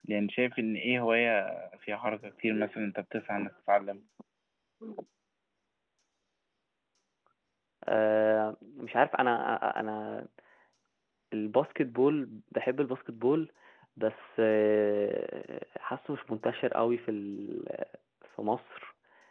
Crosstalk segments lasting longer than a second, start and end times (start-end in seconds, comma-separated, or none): none